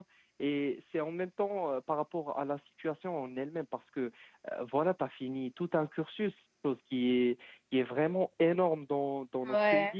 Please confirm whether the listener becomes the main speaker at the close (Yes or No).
No